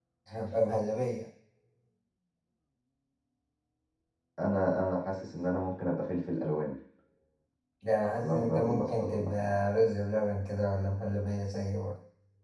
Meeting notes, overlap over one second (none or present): present